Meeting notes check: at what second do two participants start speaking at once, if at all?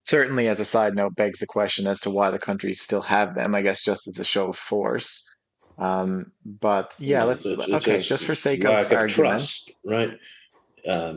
7 s

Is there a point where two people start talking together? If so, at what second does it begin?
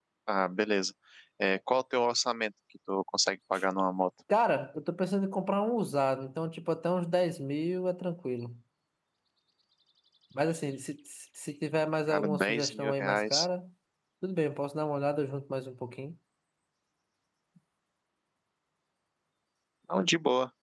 12 s

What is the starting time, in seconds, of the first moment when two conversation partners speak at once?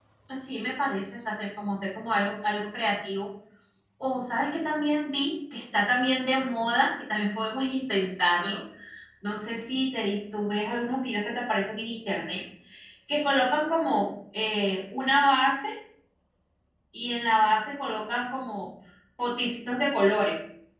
none

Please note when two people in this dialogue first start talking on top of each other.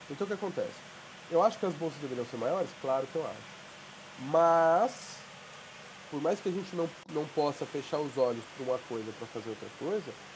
none

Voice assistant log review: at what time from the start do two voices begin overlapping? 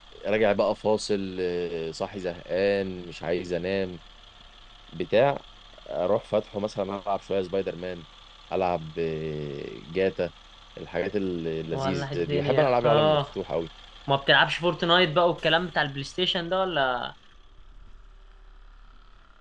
12 s

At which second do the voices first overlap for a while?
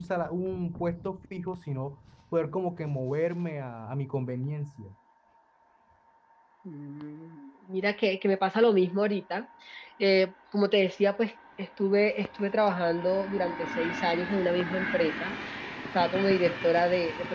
none

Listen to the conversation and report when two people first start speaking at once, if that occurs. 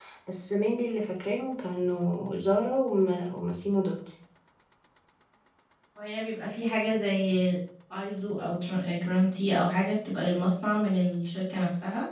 none

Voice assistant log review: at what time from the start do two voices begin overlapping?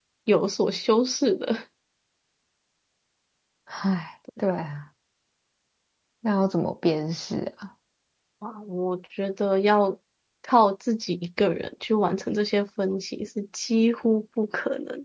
none

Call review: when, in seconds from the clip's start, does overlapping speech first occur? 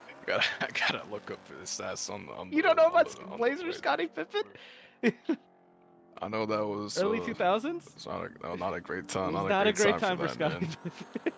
3 s

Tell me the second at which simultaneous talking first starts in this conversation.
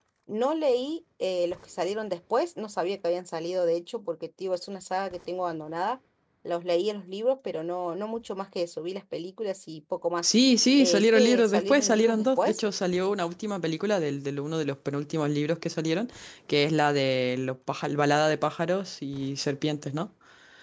11 s

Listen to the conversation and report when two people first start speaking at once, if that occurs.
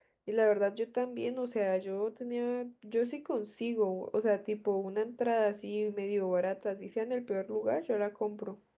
none

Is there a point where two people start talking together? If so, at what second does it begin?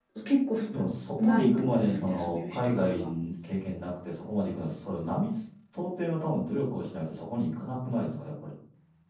1 s

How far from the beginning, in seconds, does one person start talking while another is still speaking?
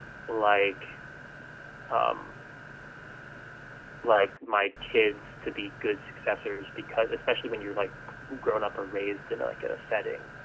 none

